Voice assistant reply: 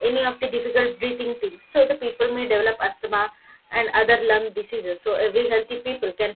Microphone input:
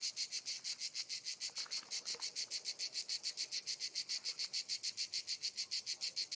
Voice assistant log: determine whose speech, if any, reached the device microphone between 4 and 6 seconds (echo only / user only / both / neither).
neither